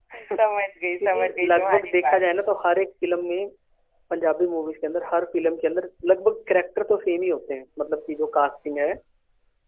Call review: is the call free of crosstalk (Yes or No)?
No